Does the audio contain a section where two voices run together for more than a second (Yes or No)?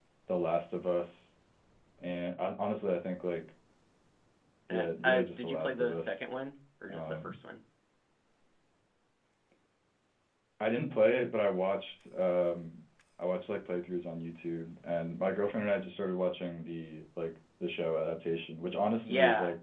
Yes